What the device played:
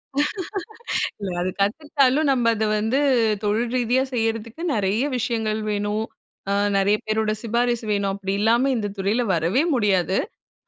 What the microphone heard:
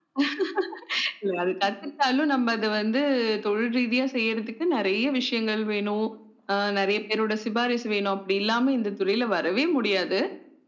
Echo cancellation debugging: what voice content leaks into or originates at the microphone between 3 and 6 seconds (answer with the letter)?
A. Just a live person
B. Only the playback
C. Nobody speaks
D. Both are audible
B